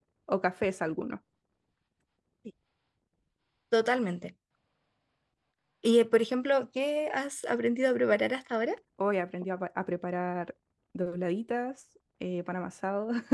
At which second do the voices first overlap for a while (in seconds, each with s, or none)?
none